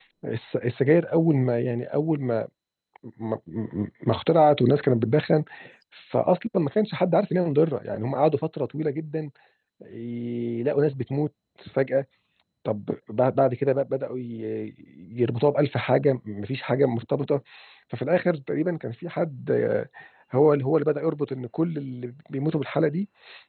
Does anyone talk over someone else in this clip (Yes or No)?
No